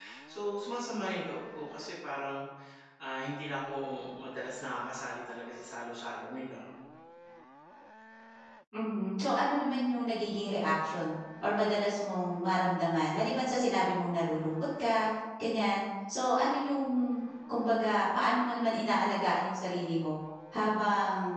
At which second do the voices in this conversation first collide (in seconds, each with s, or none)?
none